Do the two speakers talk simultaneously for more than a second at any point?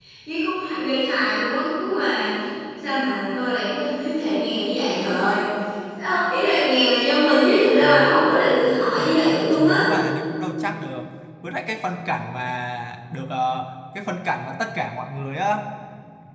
Yes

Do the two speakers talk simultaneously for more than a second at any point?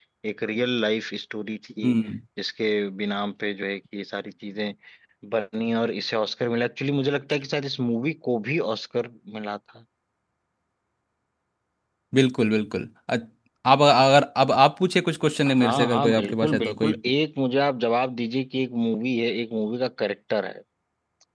Yes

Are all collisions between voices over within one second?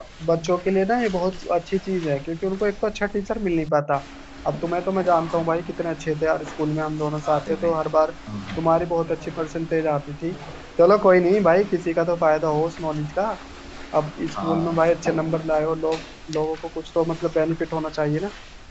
Yes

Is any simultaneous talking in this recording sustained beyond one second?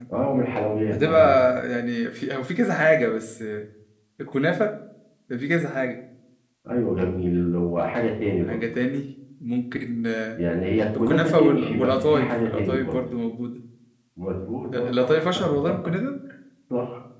Yes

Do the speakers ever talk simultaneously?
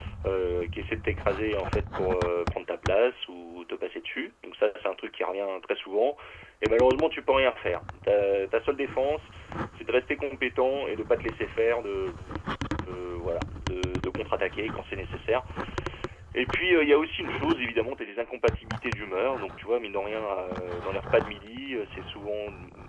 No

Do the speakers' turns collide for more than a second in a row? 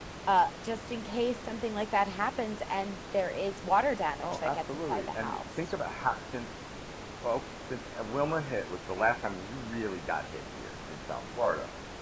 Yes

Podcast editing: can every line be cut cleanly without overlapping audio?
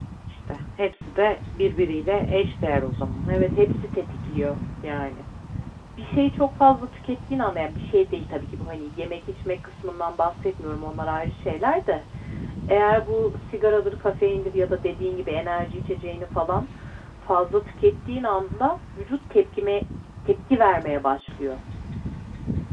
Yes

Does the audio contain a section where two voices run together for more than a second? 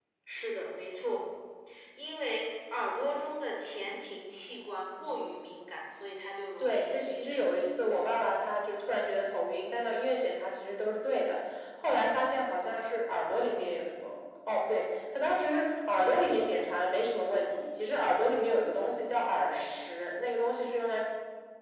Yes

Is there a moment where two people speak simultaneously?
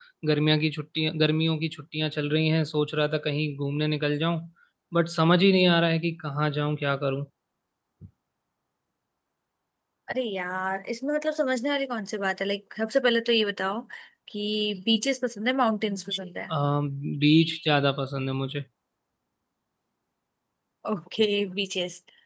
No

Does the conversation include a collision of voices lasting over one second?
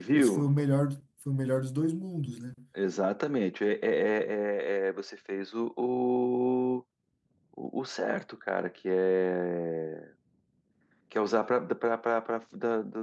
No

